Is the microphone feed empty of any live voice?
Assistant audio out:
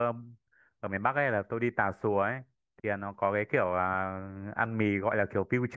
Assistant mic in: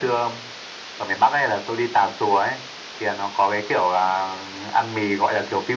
Yes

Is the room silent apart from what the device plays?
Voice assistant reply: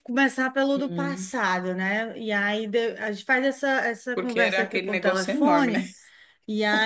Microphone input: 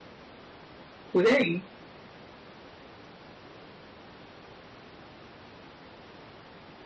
No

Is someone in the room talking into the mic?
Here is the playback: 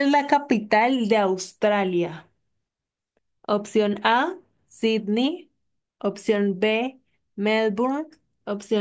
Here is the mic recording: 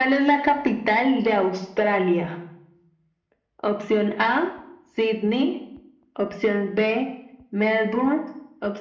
No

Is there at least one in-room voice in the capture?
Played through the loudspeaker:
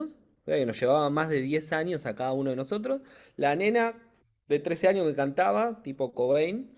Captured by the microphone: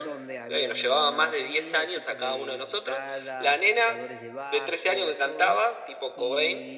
Yes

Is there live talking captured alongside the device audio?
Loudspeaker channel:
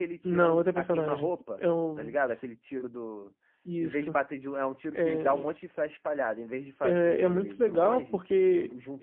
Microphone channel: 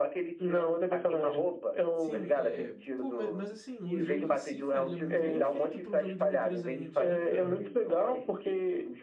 Yes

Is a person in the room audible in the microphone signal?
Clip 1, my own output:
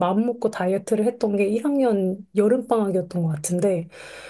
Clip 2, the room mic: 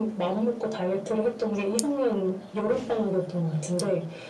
No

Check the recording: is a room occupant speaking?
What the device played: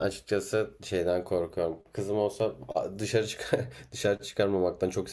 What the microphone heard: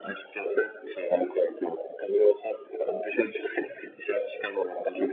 No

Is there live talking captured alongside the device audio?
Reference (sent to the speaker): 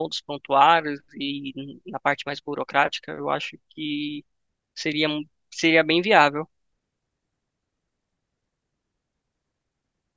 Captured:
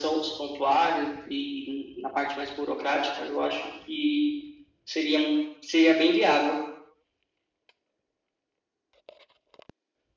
No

